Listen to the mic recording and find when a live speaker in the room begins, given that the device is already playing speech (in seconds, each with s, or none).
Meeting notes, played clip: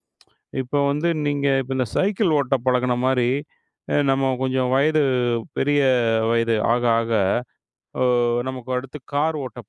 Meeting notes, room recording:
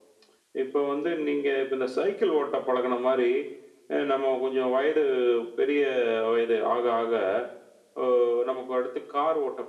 none